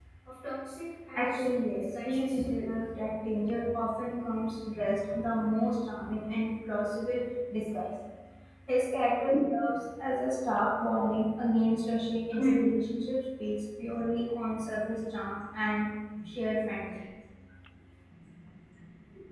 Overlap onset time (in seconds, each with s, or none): 1.1 s